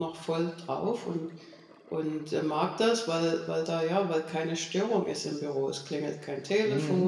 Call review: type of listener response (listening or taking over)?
listening